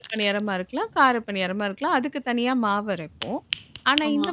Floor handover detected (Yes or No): No